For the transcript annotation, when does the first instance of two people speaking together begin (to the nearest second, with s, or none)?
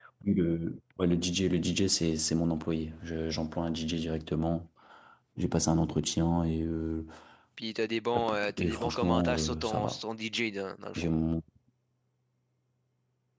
8 s